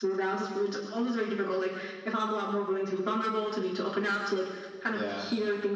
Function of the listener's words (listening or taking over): listening